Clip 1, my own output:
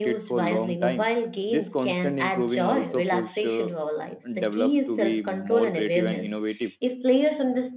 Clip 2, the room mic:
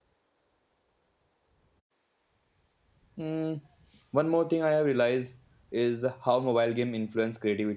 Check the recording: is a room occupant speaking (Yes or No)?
Yes